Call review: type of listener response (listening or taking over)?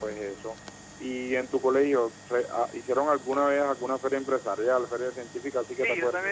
taking over